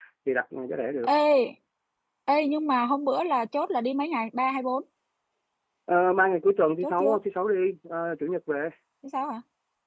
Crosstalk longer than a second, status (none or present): none